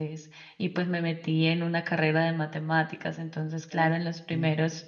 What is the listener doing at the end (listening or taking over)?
listening